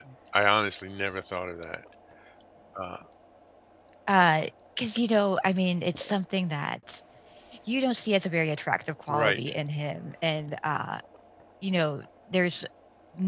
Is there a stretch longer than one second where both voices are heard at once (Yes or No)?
No